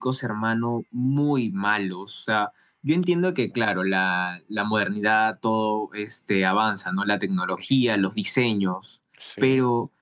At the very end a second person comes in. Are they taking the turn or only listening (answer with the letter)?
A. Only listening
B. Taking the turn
A